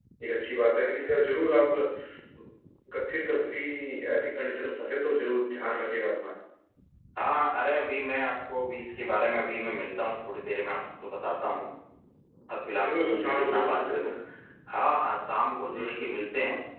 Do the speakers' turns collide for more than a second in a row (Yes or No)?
Yes